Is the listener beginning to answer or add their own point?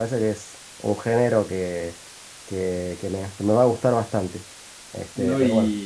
Yes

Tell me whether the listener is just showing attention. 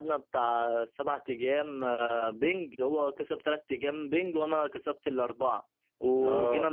Yes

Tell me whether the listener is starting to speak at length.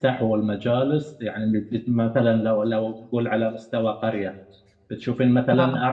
No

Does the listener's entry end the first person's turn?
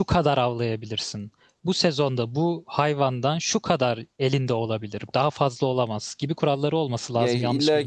Yes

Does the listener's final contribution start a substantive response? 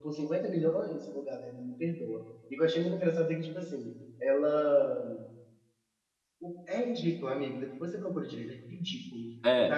No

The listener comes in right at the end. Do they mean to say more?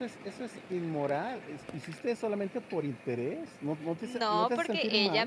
Yes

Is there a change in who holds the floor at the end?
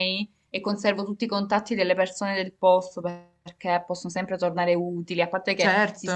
No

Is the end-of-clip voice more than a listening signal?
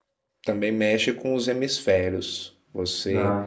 No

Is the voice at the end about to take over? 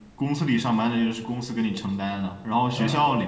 No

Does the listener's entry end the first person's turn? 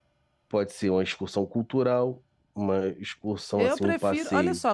Yes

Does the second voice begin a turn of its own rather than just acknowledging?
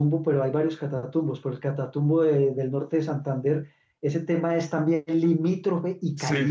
Yes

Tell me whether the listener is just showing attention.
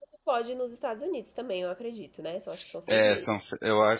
No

